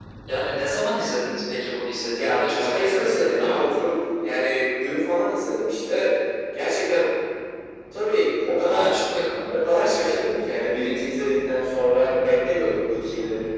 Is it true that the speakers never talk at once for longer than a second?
No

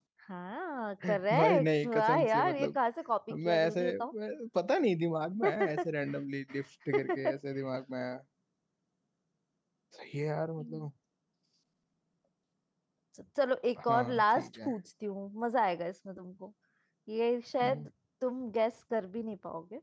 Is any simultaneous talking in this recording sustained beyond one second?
Yes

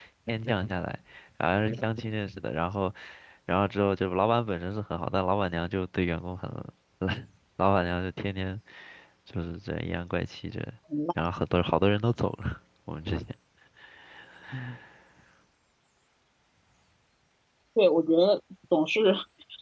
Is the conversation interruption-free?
Yes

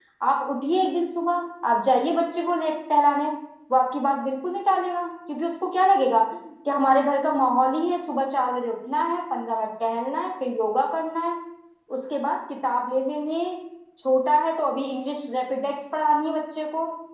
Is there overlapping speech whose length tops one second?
No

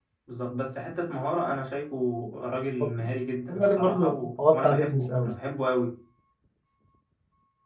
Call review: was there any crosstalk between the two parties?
Yes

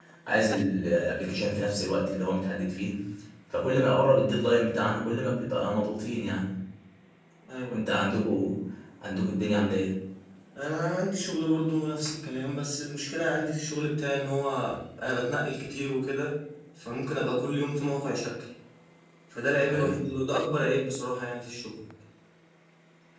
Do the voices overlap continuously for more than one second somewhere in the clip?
No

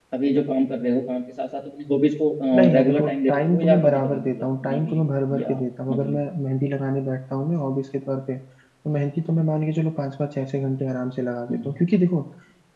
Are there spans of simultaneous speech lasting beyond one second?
Yes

